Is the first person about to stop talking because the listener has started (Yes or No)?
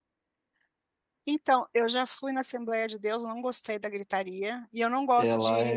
No